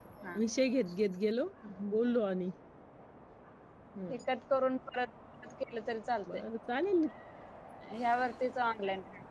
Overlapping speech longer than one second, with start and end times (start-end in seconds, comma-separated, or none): none